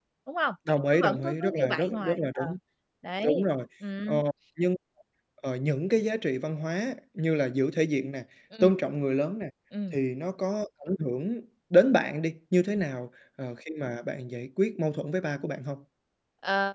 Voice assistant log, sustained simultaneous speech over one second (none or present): present